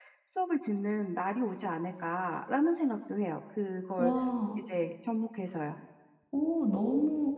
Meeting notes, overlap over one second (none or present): none